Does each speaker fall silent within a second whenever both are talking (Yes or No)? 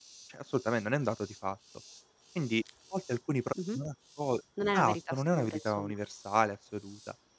No